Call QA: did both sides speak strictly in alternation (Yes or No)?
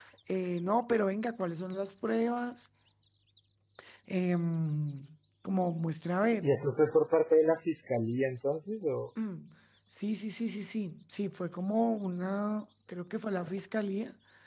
Yes